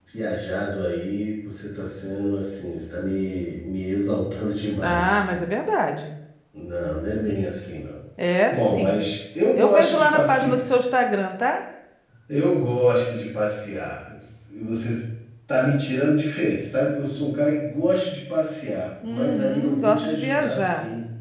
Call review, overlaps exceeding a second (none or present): present